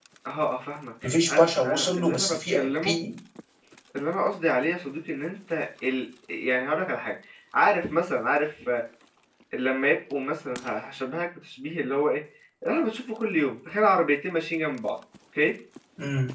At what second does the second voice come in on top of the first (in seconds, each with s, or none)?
1.0 s